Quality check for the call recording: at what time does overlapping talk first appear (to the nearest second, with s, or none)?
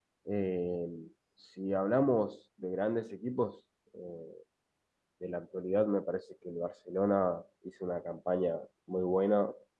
none